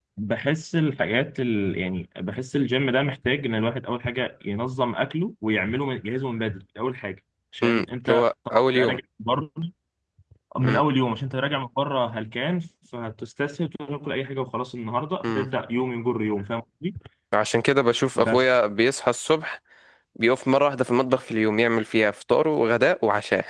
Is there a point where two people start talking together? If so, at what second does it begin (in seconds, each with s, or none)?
7.6 s